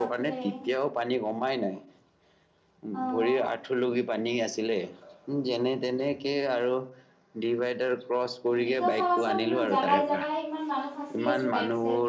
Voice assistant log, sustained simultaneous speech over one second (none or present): present